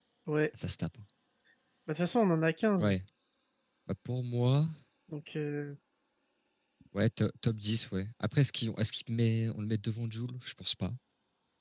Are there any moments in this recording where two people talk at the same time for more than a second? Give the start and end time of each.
none

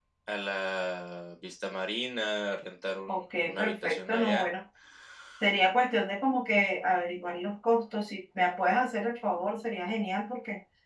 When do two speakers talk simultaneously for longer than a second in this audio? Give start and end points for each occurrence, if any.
3.1-4.4

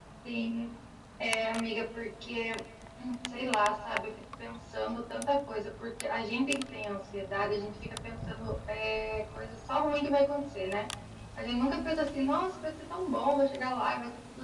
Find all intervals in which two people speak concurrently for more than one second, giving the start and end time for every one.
none

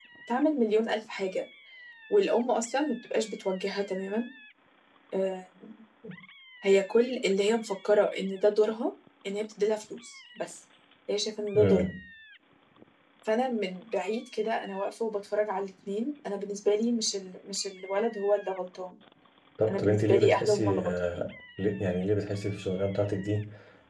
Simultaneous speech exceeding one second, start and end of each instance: 19.7-21.3

